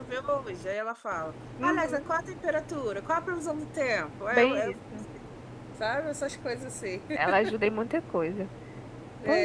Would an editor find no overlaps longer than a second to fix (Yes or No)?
Yes